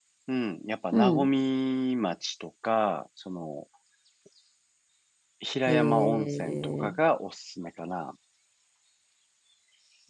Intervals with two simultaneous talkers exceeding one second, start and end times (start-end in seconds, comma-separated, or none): 5.7-7.0